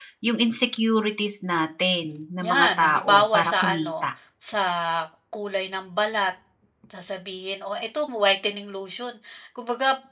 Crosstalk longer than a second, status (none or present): present